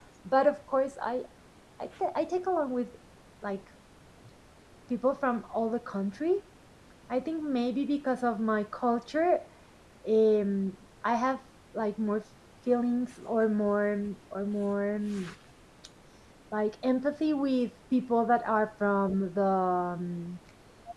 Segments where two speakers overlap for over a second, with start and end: none

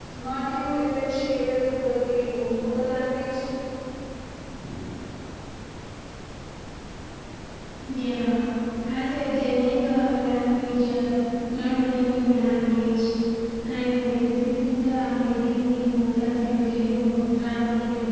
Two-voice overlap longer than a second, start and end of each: none

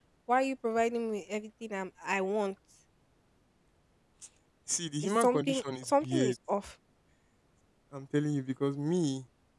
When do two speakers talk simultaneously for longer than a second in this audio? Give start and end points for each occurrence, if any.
5.0-6.3

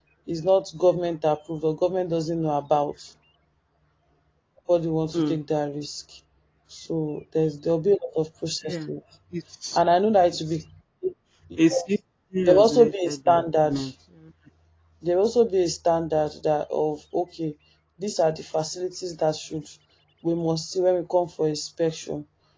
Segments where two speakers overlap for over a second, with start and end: 12.5-13.8

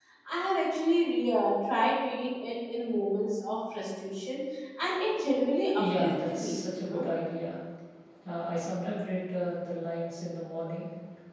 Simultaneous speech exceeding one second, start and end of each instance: 5.8-7.0

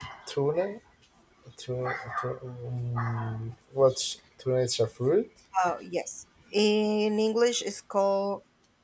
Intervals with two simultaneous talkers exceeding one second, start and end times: none

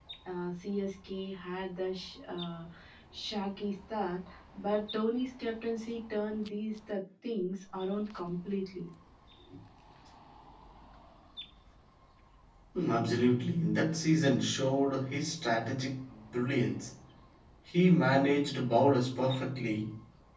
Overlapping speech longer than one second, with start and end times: none

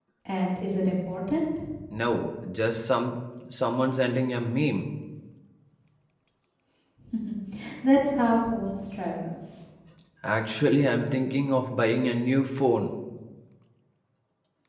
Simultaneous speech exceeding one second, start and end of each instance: none

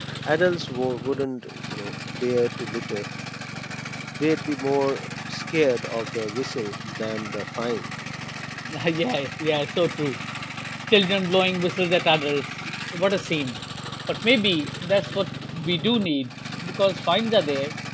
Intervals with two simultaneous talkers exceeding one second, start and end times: none

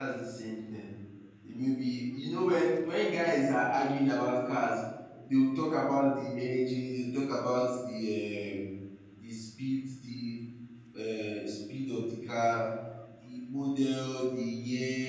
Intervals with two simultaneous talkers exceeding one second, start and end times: none

